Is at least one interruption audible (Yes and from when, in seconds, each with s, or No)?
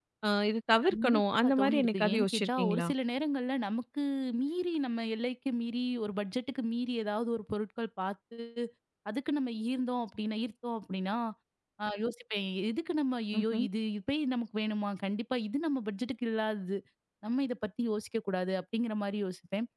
Yes, from 0.9 s